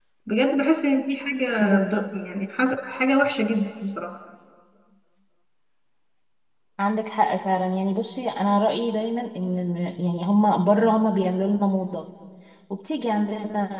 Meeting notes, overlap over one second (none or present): none